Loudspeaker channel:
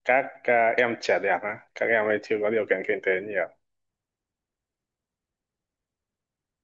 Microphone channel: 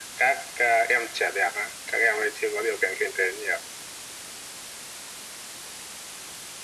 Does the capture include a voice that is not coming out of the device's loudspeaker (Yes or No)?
No